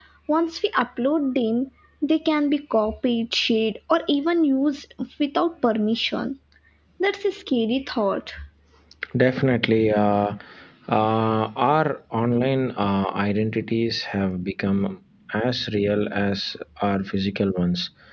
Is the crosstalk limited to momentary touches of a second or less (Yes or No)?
Yes